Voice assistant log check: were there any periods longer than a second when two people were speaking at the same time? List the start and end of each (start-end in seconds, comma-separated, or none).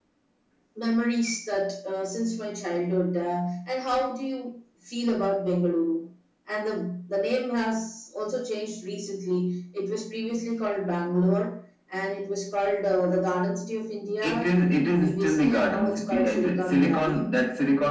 15.0-17.2